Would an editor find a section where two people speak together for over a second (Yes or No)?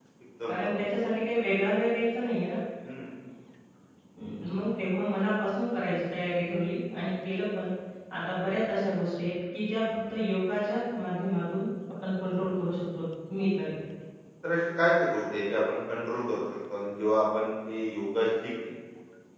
No